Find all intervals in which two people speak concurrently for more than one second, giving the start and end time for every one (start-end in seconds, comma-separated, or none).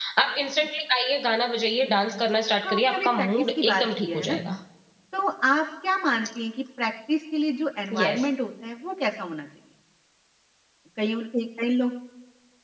2.6-4.4